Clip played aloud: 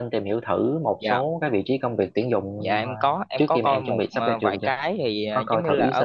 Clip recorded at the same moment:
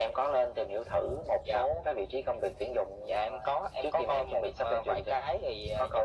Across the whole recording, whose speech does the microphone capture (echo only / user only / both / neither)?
echo only